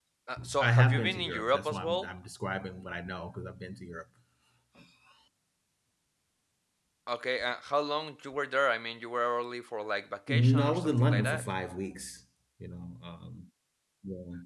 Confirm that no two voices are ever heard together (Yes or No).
No